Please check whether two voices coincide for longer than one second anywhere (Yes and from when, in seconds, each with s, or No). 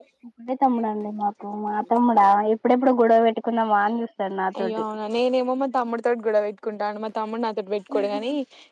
No